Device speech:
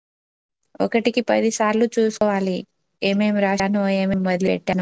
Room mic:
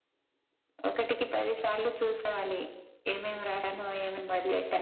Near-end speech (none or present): none